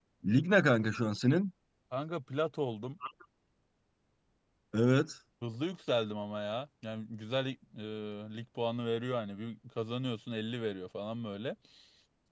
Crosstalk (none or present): none